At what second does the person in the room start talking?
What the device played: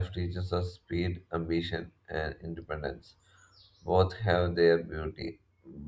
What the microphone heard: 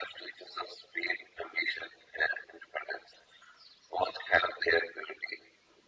none

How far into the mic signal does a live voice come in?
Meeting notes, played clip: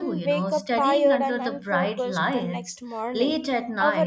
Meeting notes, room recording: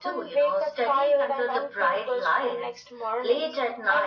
none

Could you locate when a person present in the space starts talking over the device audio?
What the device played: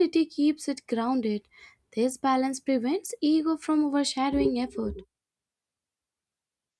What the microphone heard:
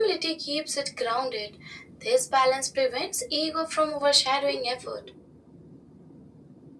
none

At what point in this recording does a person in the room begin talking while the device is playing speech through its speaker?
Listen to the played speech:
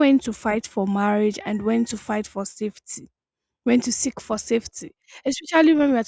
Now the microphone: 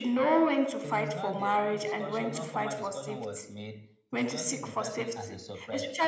0.8 s

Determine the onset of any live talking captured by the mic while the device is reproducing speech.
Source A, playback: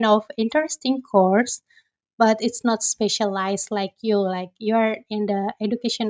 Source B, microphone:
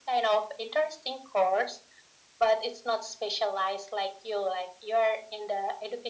none

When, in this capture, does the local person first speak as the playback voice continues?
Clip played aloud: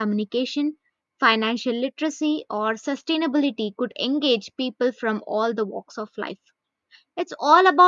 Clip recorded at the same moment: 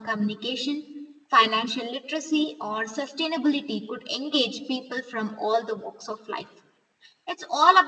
none

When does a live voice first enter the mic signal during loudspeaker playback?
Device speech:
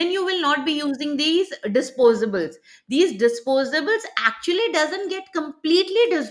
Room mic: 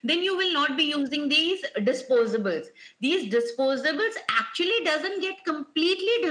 none

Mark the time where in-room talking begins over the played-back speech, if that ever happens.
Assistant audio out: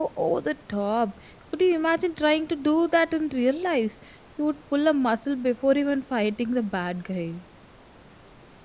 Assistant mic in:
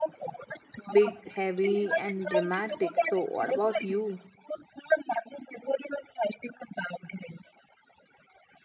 0.9 s

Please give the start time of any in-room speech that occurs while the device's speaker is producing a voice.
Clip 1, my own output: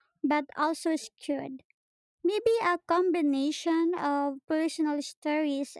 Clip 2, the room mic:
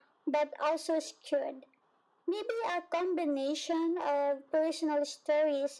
none

